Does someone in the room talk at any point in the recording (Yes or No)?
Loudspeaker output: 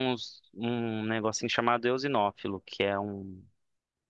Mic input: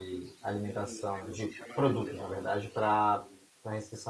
Yes